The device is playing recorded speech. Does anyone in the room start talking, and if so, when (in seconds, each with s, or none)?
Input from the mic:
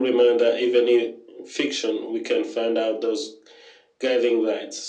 none